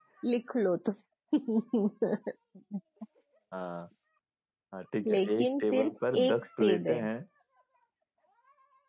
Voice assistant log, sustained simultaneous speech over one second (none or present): present